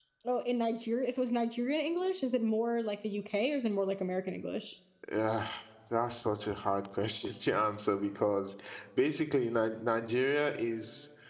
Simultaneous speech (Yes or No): No